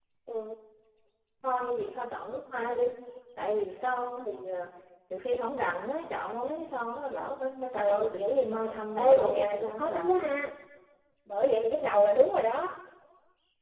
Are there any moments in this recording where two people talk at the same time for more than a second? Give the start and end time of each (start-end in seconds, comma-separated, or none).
7.8-10.4